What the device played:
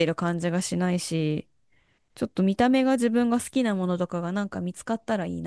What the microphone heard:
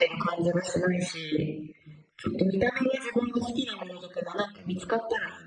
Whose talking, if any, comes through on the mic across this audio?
echo only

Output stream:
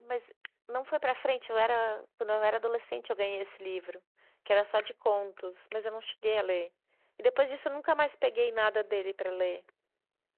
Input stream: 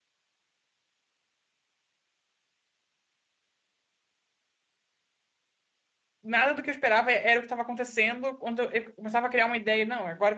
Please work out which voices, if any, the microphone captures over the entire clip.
user only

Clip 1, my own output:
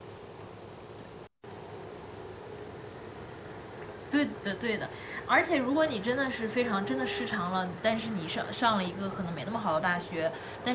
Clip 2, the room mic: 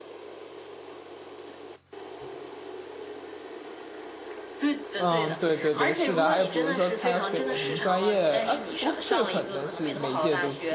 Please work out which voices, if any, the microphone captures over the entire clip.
both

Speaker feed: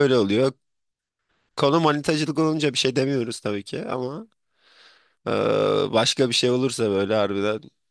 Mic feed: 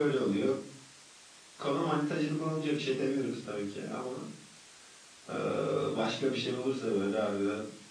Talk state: echo only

